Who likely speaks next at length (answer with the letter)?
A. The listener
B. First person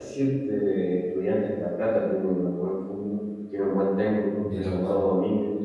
B